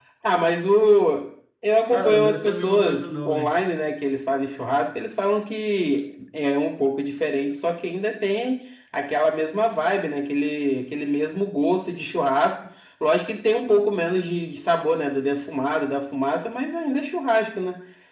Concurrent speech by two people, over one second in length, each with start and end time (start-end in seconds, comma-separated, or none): 1.9-3.5